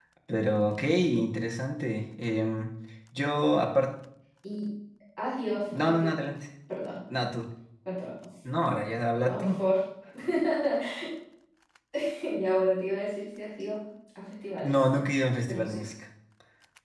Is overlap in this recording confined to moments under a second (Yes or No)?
Yes